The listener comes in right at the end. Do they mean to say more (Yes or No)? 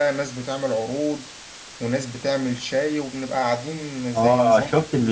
Yes